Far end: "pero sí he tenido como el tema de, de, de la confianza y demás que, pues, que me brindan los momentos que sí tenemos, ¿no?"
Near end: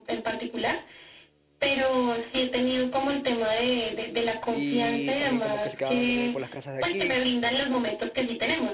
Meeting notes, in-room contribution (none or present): present